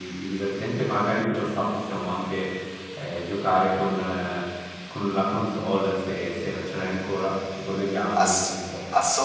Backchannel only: No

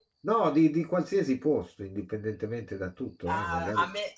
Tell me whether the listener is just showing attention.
No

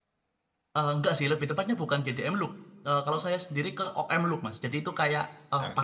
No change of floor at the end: Yes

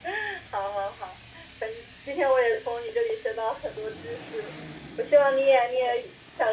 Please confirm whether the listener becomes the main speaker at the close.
No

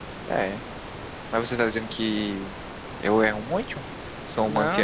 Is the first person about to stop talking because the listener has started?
Yes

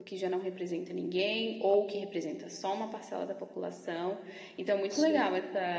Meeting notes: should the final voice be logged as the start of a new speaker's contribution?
No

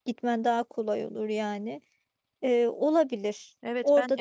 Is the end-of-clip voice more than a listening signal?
Yes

